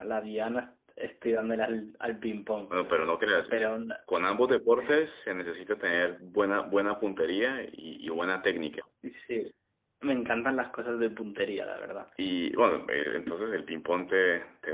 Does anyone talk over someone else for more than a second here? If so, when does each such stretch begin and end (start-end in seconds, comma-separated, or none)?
none